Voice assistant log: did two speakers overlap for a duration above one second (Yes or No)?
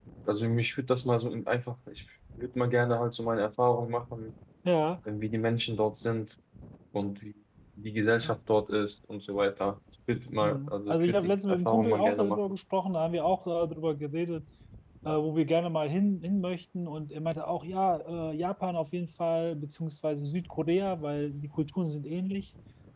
Yes